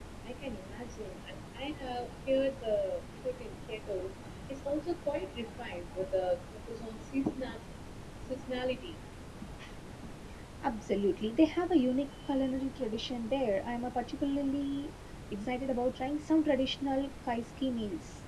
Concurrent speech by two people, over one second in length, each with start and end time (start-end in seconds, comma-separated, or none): none